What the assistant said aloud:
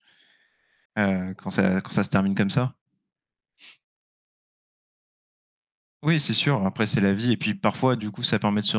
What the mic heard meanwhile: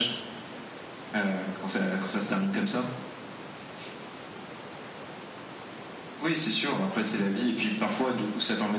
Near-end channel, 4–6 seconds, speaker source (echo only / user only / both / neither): neither